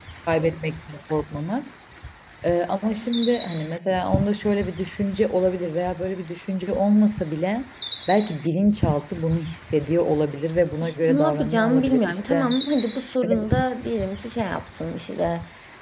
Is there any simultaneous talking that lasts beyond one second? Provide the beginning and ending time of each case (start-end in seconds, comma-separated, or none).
10.8-12.6